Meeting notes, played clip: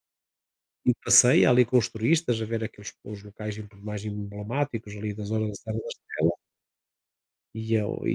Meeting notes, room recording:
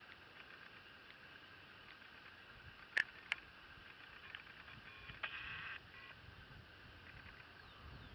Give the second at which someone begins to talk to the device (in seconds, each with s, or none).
none